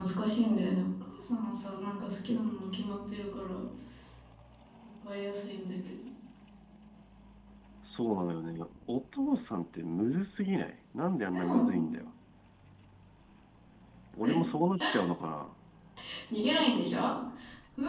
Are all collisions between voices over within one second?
Yes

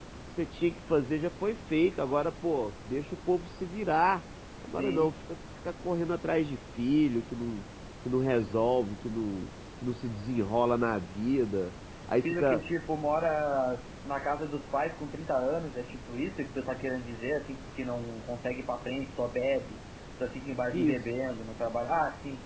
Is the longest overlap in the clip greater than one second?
No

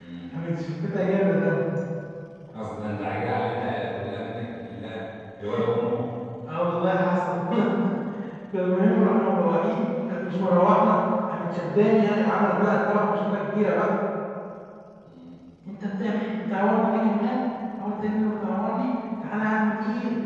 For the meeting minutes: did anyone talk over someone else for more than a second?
No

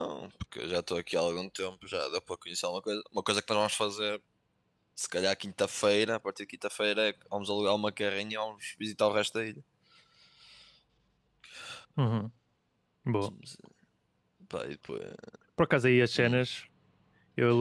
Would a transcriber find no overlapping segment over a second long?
Yes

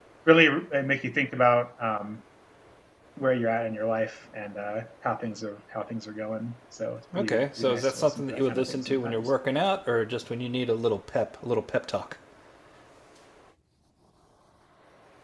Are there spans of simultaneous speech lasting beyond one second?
Yes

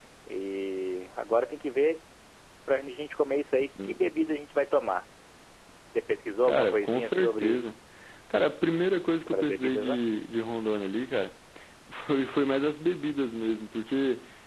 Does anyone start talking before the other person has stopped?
Yes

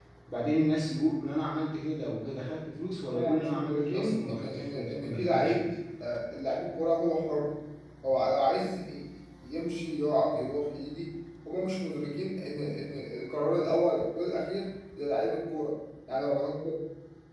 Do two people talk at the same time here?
Yes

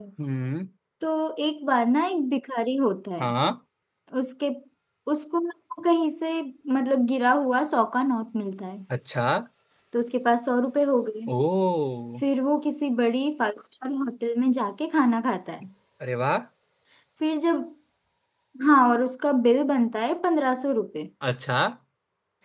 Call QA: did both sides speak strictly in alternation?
Yes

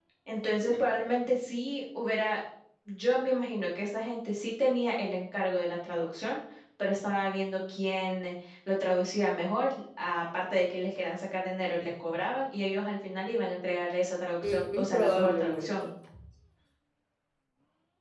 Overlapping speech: Yes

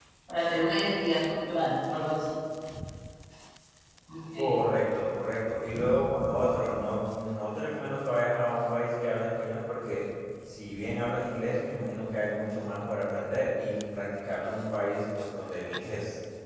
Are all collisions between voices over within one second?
Yes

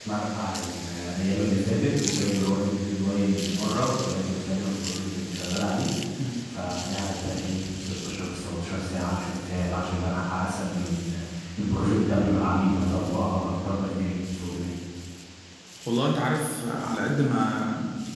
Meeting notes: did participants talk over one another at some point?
No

